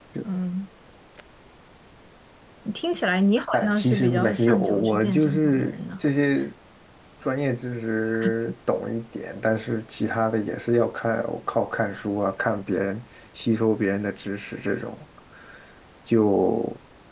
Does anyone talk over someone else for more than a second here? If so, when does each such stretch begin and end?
3.5-6.0

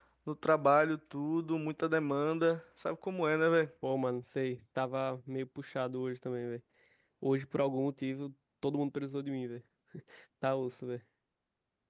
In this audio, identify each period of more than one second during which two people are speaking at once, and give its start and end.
none

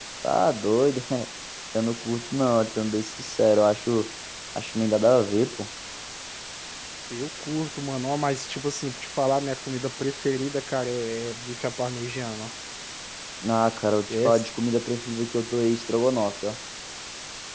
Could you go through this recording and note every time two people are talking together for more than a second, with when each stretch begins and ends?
none

